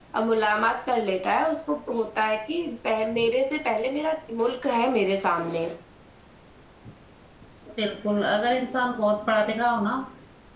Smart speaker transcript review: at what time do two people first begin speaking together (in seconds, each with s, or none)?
none